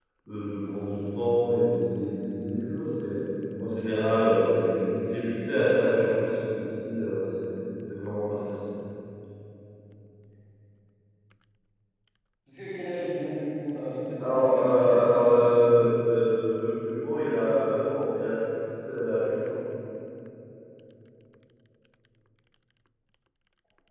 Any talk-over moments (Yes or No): Yes